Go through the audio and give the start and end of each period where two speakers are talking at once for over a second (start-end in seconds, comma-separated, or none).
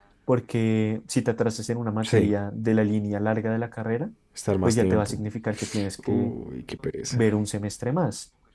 none